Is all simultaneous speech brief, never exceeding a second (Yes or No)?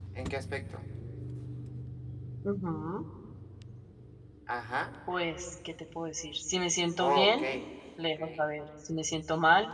Yes